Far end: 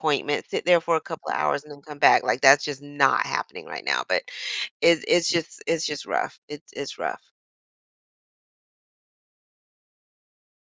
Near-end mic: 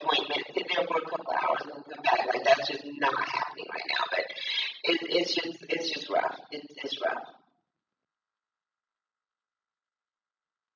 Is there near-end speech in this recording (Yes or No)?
No